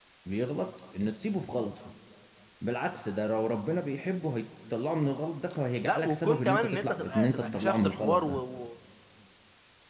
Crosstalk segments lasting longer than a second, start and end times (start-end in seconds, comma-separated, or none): 5.8-8.4